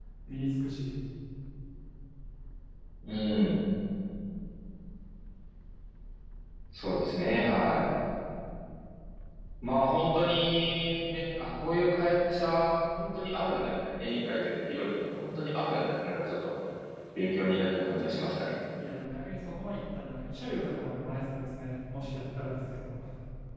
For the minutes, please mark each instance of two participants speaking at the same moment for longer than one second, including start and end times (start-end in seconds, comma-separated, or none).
none